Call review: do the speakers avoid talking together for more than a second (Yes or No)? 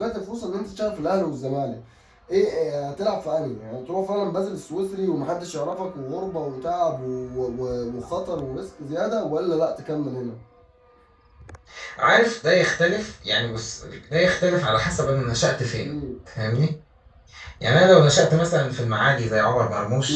Yes